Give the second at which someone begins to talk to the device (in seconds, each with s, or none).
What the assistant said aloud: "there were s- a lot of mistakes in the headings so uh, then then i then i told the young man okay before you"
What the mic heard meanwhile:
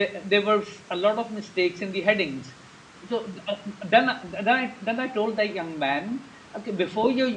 none